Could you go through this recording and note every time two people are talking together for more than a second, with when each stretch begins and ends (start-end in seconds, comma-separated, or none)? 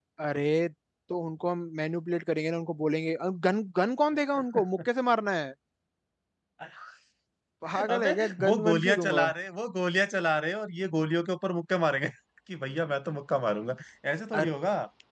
7.9-9.3